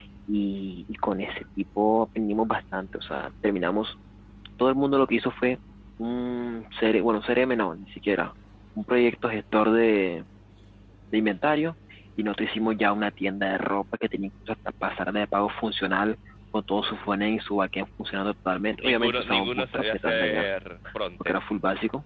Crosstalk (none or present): present